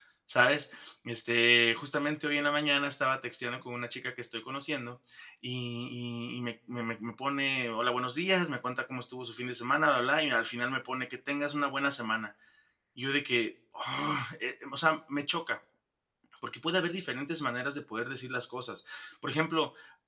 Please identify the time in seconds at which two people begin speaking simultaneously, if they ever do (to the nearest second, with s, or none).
none